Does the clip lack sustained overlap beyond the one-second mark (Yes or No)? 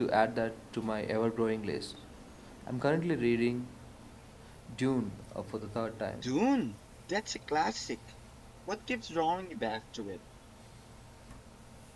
Yes